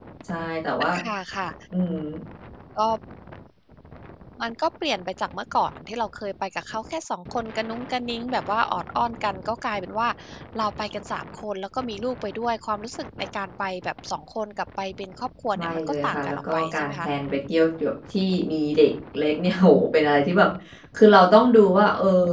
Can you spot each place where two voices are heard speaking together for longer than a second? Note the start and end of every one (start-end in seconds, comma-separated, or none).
15.6-17.1